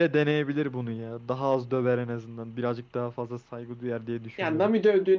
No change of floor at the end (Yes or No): No